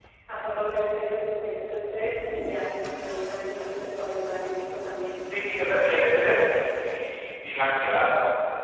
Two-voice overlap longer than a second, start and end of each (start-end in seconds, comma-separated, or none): none